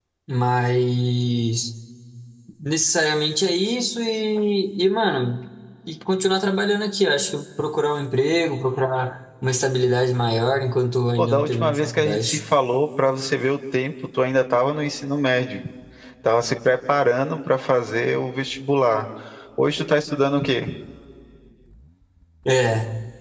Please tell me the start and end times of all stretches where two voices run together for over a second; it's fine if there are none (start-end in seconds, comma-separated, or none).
11.2-12.4